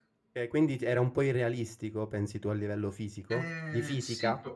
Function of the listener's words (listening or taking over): taking over